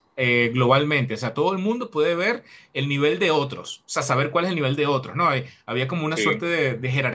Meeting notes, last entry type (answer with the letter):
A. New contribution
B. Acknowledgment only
B